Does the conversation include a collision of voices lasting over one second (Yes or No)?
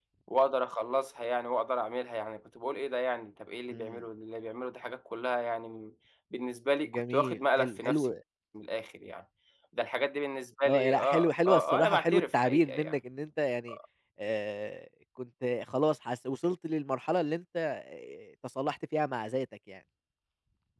Yes